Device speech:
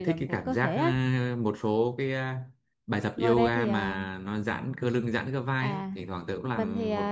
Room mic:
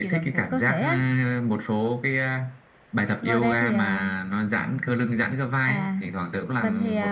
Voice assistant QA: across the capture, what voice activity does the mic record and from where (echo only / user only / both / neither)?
echo only